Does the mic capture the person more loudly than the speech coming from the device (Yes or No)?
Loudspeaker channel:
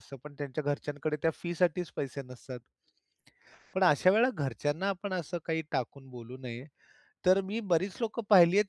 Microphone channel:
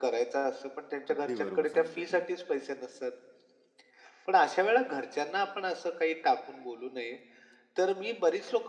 No